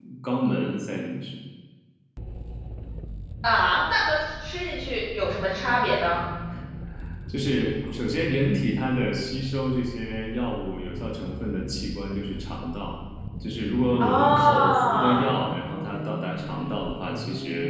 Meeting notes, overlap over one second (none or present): present